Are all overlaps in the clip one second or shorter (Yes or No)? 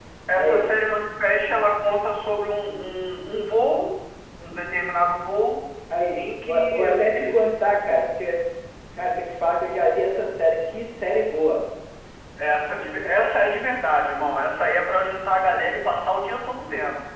No